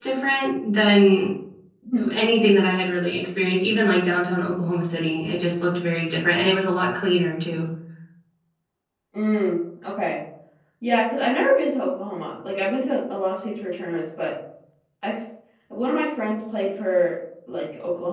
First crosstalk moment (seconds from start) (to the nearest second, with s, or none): none